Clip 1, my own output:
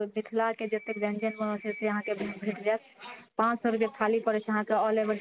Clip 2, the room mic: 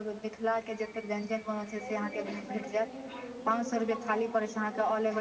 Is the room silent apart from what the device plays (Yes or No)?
No